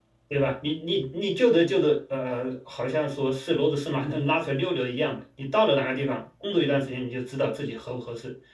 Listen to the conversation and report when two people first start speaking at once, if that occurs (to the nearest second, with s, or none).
none